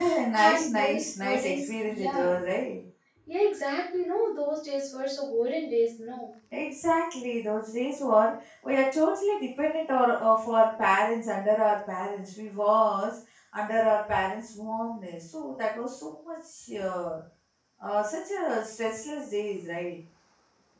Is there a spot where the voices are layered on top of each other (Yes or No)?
Yes